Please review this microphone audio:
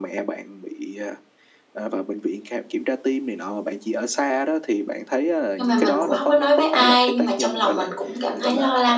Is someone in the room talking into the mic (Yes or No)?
Yes